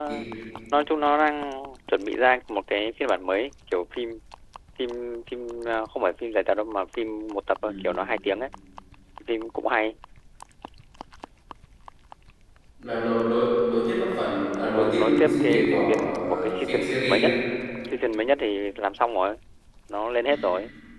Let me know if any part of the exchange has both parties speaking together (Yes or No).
Yes